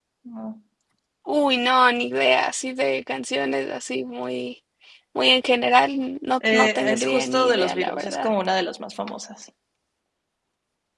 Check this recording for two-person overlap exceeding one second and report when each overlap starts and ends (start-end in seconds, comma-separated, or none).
6.5-8.3